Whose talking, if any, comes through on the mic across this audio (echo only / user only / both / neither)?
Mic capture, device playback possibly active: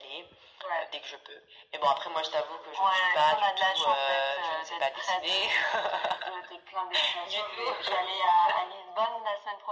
echo only